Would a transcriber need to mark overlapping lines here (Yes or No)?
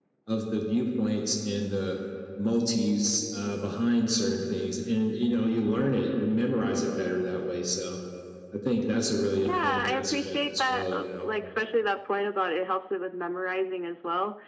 Yes